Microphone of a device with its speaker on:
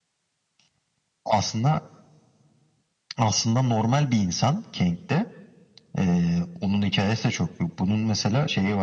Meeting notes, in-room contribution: none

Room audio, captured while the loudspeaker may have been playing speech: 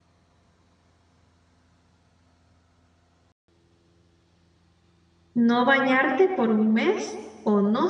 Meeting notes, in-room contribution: present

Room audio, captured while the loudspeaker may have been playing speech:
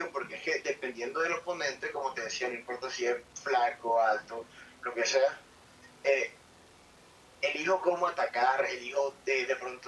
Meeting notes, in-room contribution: none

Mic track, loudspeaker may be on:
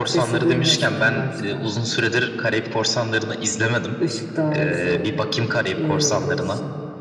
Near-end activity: none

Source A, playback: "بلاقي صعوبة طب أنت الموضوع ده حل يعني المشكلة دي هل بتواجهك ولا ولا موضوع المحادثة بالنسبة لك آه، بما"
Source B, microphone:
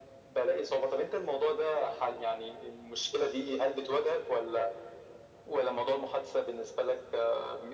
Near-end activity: none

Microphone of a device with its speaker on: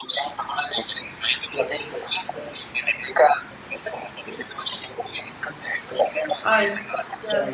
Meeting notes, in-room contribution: present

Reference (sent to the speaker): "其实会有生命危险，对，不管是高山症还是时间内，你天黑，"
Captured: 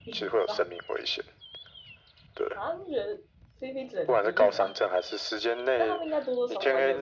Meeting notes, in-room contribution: present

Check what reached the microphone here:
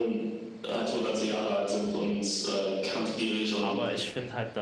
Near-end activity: present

